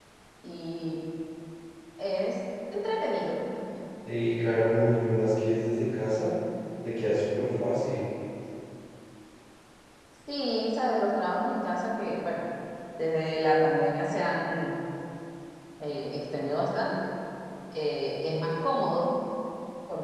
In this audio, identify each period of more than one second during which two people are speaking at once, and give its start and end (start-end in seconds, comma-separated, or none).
none